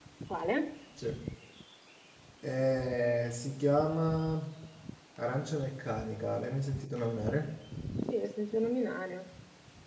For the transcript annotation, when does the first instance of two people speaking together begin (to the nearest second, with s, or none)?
none